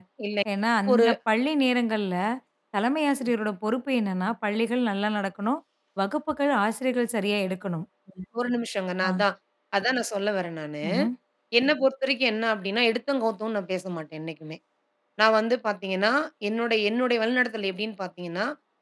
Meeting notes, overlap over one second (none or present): none